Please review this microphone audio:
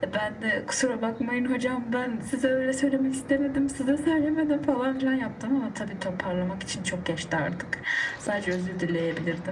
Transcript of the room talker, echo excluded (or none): none